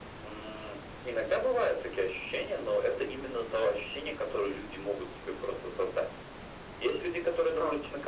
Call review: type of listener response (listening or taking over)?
listening